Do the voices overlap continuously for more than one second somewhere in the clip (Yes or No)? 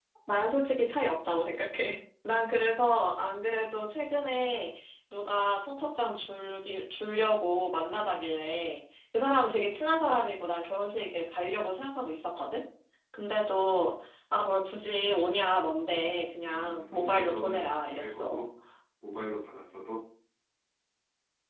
Yes